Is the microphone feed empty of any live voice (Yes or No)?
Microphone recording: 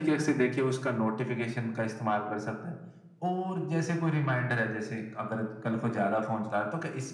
Yes